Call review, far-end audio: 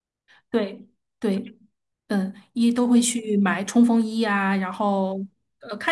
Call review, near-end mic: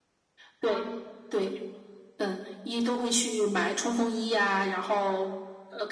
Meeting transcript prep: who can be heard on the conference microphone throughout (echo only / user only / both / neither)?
both